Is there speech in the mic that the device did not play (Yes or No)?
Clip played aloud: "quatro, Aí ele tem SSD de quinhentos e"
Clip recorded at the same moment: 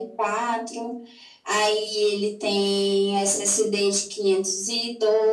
No